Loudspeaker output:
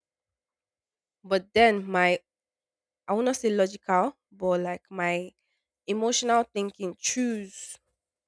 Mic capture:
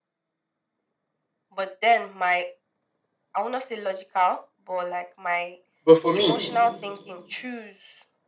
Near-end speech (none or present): present